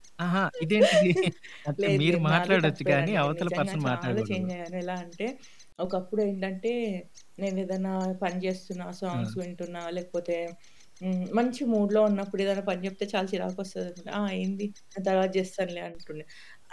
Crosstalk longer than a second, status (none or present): present